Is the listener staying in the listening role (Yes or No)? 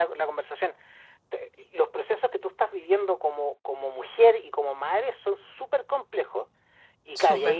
Yes